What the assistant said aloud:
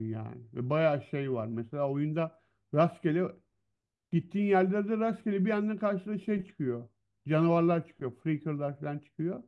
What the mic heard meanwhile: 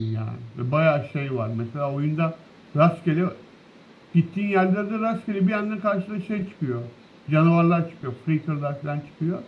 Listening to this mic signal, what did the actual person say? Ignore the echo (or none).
none